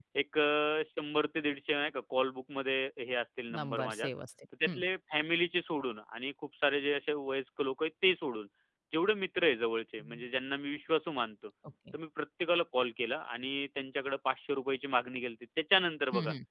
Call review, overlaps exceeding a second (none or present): none